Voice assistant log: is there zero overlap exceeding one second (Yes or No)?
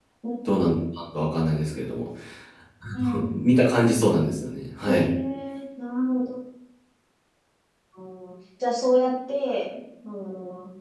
Yes